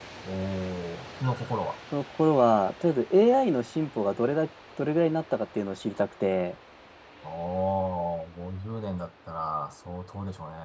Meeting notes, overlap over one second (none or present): none